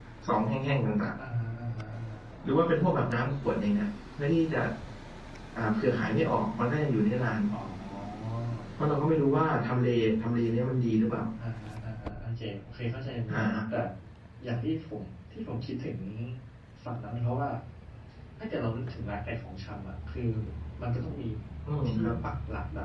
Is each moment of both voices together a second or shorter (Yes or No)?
Yes